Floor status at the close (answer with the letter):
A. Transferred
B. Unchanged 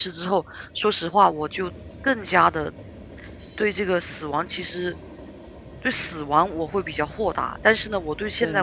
B